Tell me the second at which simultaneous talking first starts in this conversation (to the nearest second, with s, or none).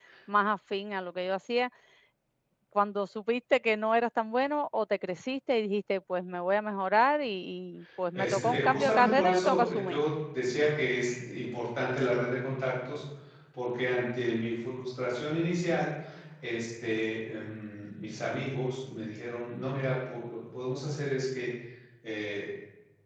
8 s